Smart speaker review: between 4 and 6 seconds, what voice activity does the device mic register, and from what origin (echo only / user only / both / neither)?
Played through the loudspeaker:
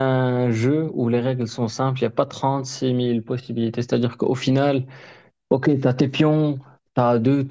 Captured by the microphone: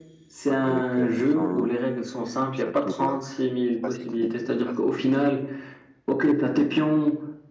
both